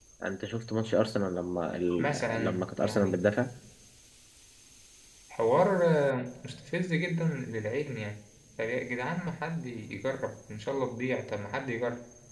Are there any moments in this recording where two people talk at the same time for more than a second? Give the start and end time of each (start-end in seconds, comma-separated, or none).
2.0-3.2